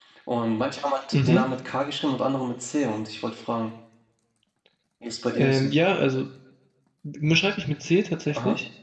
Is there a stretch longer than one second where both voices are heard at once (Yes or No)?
No